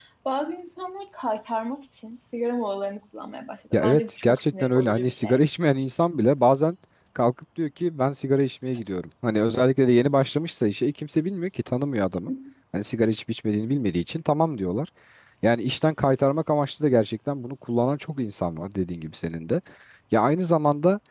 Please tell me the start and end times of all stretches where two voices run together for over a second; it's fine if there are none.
3.7-5.4

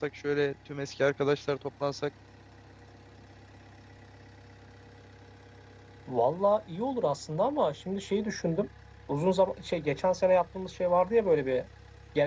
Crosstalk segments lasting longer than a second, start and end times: none

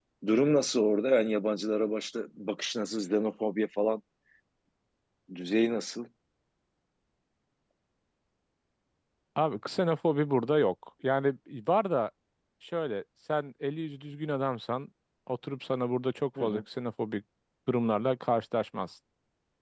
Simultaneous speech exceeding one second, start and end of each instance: none

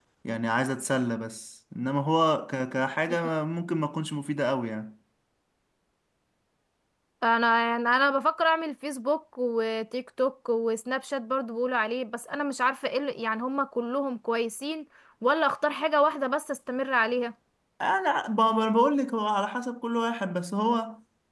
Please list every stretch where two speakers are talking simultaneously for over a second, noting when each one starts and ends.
none

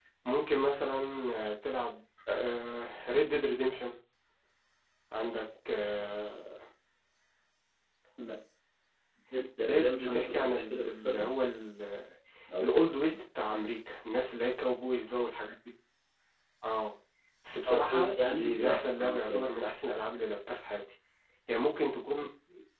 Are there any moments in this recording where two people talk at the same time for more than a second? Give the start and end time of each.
9.6-11.3, 17.7-19.5

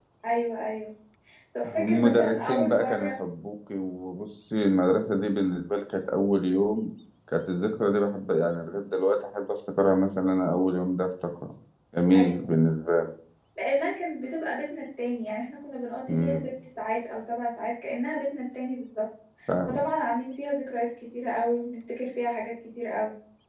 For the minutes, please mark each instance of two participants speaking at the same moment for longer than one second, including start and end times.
1.8-3.1

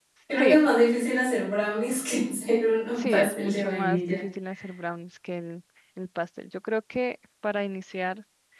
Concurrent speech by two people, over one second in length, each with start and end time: 2.9-4.2

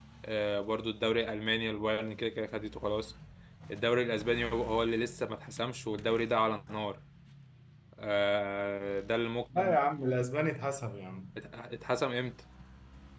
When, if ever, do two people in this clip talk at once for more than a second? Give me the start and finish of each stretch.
none

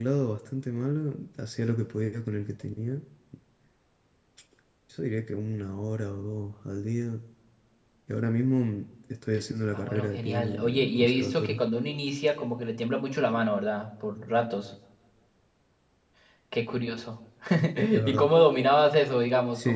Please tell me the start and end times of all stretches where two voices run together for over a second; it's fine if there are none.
9.7-11.6

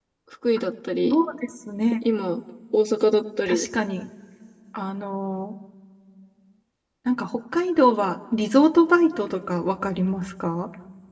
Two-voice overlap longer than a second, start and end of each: none

